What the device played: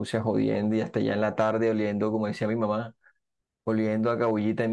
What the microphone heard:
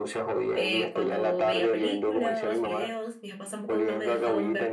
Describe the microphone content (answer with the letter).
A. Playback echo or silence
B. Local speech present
B